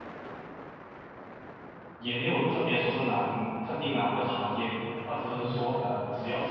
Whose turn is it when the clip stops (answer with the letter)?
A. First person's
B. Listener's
A